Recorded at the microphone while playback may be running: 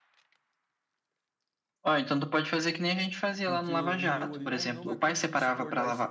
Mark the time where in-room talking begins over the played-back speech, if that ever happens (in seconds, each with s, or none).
3.4 s